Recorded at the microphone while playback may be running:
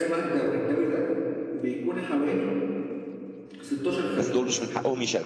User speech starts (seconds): 4.2 s

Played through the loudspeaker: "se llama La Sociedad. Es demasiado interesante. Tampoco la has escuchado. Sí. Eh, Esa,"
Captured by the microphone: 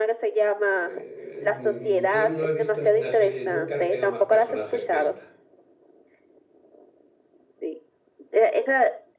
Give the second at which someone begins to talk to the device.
0.6 s

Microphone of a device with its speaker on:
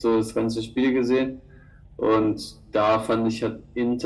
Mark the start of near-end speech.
none

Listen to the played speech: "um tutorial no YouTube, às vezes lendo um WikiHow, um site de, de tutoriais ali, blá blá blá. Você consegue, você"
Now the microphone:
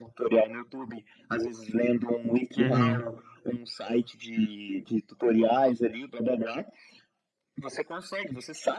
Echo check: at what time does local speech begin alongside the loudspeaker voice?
2.6 s

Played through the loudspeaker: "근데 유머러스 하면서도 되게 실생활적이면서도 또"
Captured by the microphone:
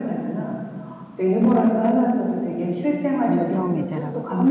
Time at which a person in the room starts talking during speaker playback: 3.2 s

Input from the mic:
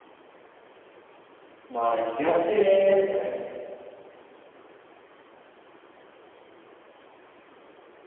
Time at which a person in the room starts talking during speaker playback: 1.7 s

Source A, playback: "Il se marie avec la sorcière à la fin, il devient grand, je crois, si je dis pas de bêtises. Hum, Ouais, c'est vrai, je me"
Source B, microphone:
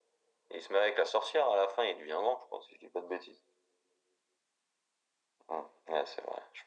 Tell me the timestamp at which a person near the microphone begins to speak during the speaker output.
none

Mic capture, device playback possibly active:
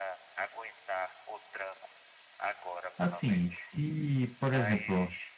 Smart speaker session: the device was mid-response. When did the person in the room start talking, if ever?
3.0 s

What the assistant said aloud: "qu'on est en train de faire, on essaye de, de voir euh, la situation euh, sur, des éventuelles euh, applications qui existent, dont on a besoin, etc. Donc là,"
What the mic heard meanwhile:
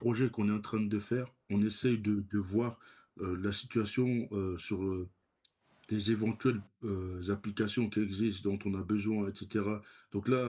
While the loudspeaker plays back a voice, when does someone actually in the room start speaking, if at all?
none

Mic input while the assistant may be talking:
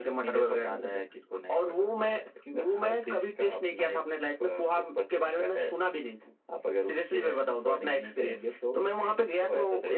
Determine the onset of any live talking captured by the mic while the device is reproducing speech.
none

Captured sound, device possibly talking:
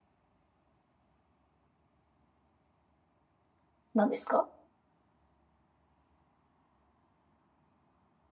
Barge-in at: 3.9 s

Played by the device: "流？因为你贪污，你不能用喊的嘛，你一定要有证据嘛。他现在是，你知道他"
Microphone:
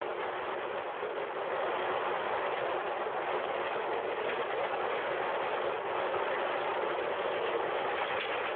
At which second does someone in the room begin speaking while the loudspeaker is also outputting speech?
none

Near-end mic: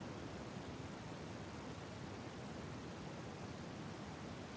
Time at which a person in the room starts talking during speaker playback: none

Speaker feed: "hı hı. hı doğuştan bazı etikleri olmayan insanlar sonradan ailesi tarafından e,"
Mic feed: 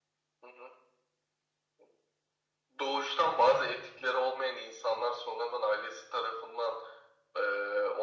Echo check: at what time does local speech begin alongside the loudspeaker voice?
none

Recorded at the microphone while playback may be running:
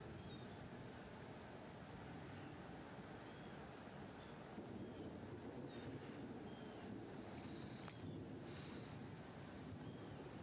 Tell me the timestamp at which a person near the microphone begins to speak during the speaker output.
none

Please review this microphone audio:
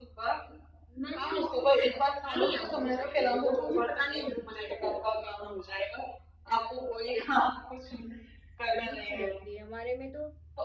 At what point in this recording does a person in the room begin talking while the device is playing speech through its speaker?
8.8 s

